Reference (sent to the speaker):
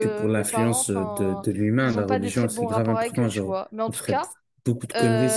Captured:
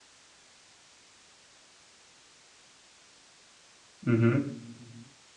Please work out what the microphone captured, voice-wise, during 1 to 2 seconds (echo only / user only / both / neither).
neither